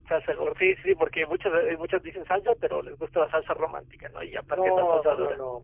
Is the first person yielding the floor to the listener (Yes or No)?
Yes